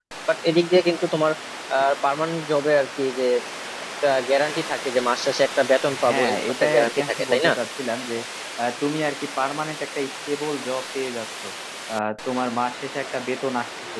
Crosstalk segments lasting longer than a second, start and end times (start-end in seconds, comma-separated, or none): 6.0-7.5